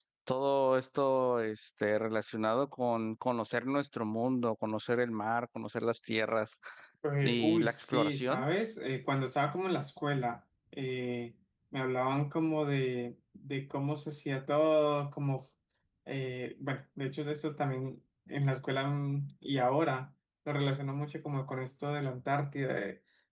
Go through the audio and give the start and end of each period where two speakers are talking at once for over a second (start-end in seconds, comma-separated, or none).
7.2-8.4